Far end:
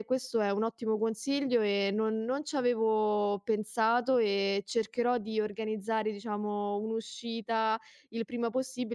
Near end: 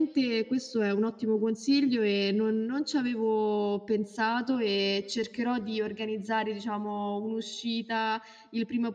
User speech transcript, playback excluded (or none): none